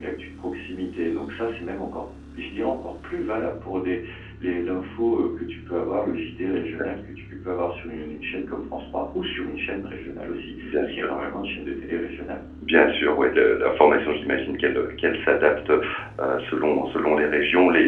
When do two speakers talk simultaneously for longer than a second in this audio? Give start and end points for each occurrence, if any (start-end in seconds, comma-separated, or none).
none